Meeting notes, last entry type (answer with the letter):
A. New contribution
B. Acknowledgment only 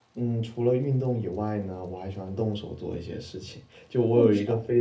B